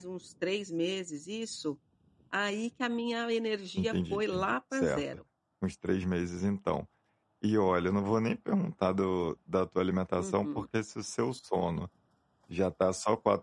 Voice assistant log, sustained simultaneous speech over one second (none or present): present